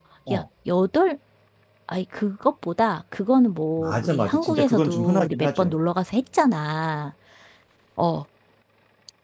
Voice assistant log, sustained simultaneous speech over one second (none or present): present